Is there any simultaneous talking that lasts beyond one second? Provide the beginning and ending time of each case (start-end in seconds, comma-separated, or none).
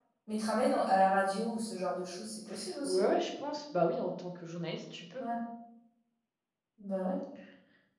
none